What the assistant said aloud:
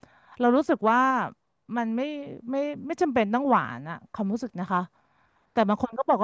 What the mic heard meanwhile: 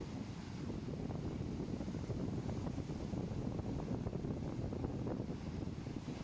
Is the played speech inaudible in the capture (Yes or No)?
Yes